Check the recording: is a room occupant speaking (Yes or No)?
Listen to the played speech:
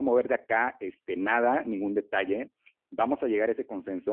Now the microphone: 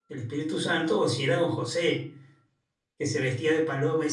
Yes